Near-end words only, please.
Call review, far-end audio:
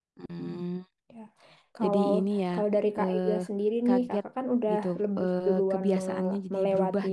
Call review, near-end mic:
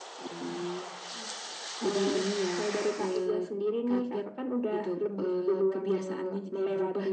none

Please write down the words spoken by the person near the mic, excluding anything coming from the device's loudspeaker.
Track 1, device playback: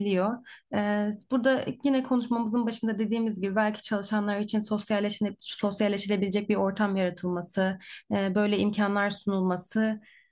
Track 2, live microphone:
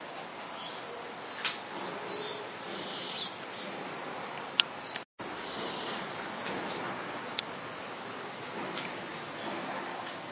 none

